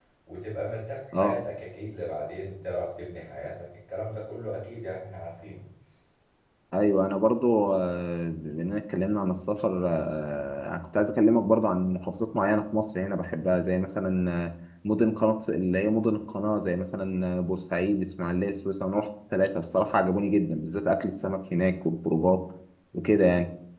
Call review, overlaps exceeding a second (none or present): none